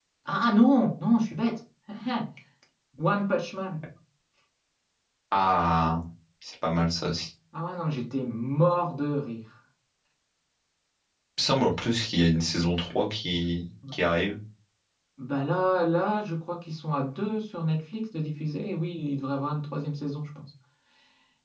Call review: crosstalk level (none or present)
none